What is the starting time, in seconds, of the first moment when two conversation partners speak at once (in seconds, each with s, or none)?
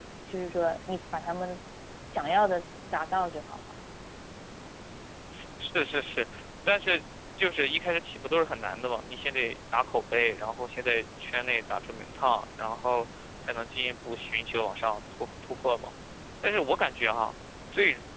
none